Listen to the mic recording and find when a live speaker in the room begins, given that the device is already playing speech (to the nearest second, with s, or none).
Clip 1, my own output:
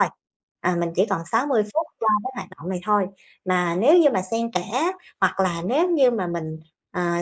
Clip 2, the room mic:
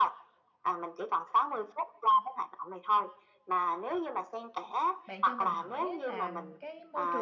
5 s